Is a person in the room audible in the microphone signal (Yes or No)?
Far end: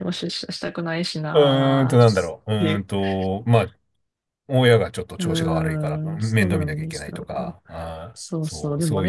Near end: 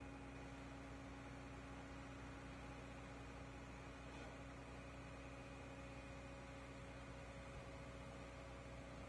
No